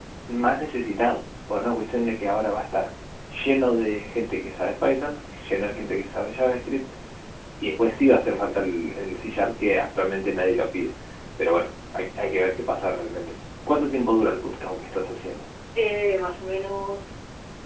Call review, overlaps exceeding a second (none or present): none